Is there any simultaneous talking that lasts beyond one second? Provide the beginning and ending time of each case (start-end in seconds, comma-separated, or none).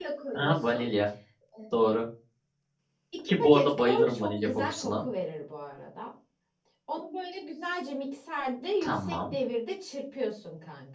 3.4-5.0